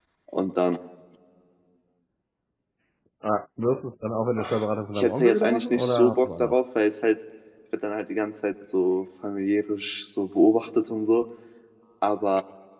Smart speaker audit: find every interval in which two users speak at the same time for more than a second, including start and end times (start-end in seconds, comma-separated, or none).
5.0-6.5